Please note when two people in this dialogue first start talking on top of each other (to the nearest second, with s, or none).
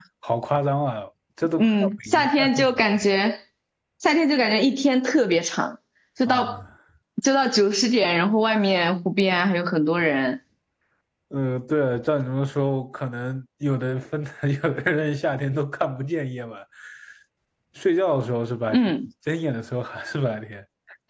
2 s